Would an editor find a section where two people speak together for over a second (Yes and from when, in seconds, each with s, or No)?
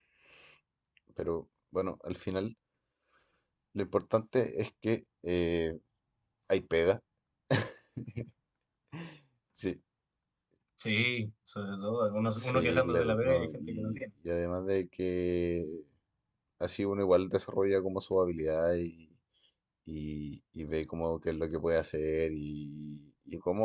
Yes, from 12.2 s